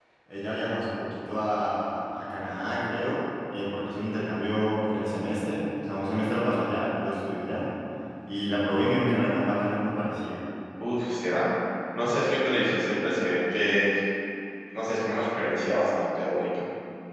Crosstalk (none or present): none